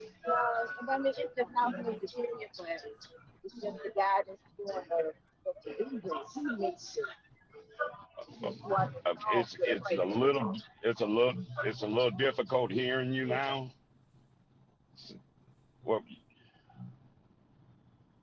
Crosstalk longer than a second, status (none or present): present